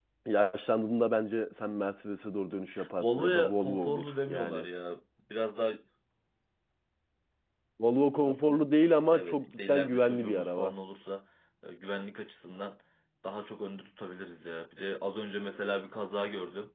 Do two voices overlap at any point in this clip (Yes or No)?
Yes